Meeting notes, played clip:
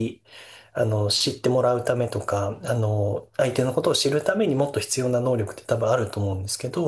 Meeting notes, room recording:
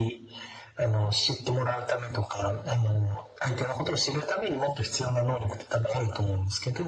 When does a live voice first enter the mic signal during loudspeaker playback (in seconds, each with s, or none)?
none